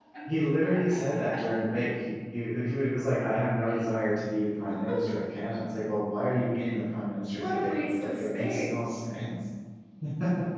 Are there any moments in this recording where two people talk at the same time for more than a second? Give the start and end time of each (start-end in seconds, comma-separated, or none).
7.4-8.7